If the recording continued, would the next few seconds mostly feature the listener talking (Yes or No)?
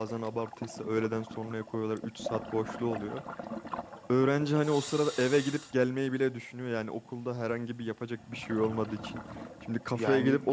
No